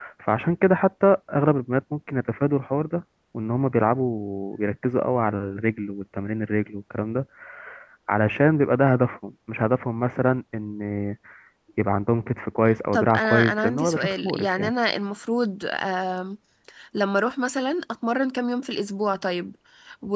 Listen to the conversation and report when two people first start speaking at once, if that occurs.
12.9 s

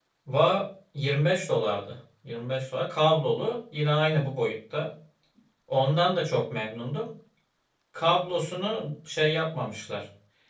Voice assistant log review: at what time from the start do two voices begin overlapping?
none

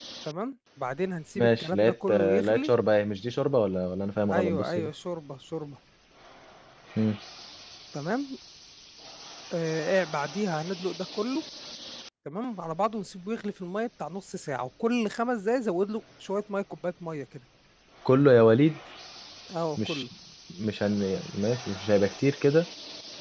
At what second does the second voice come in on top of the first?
1.4 s

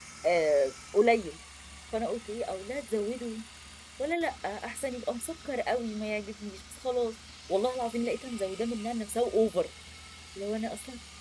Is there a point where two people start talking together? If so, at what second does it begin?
none

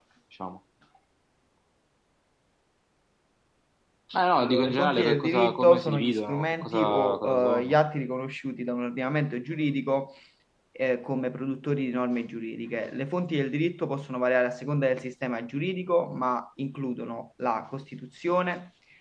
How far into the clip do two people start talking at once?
4.4 s

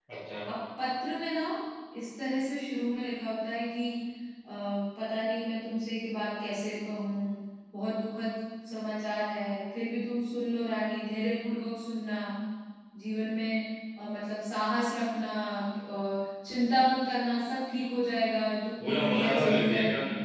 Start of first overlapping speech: 18.8 s

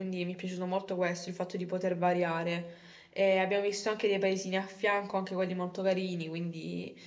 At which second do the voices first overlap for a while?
none

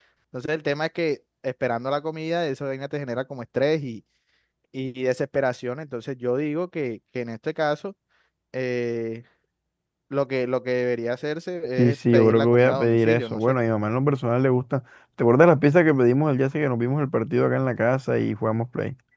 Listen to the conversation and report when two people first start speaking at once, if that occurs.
11.8 s

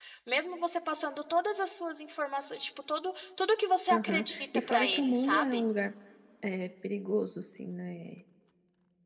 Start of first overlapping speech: 3.9 s

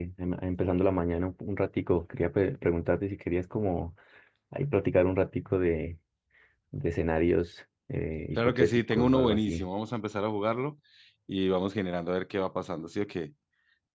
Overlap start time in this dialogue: 8.4 s

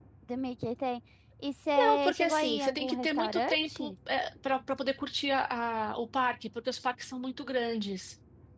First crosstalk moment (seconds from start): 1.8 s

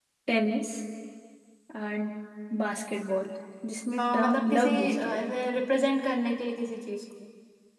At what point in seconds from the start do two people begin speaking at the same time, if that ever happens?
4.0 s

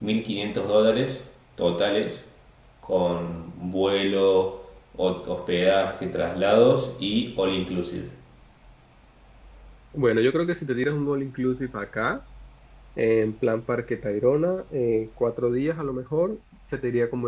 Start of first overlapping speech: none

